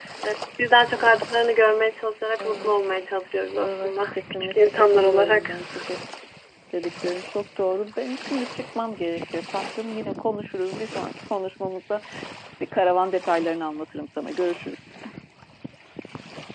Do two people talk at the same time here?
Yes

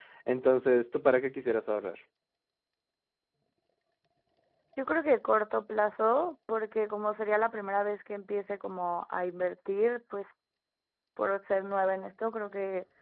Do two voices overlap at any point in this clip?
No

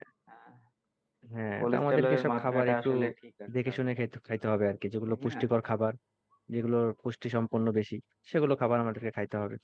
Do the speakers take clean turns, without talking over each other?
No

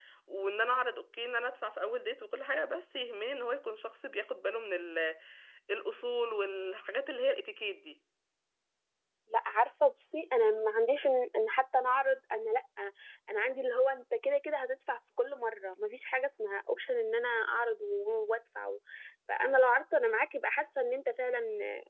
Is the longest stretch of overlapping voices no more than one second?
Yes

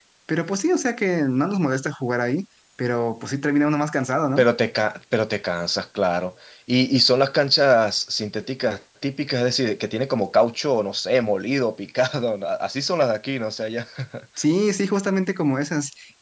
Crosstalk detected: No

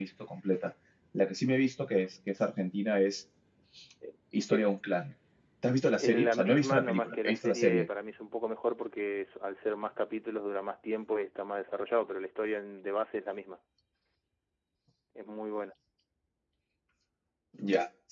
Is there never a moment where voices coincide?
No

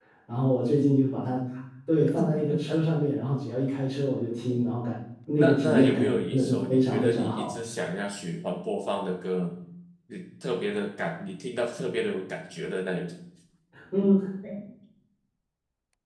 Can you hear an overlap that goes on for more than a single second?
Yes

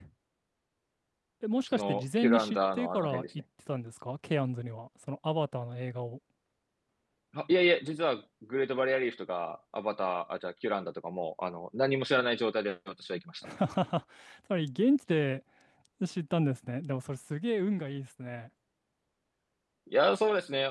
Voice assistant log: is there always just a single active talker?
No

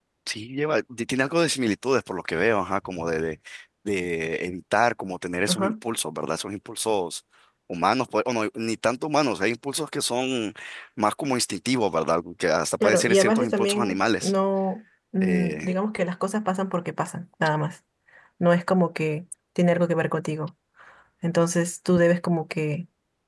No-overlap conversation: No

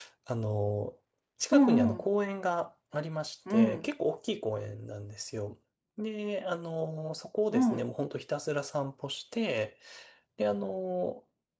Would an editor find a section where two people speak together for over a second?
No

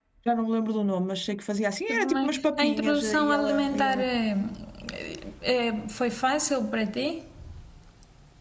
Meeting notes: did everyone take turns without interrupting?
No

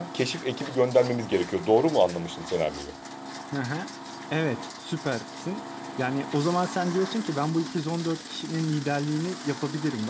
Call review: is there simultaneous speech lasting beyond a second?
No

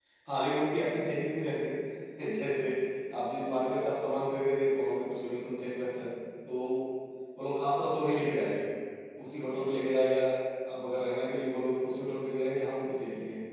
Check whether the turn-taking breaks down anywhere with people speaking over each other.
No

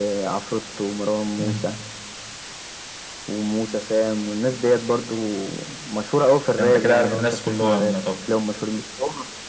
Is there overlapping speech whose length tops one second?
Yes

